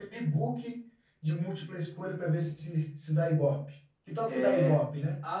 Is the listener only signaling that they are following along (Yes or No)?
No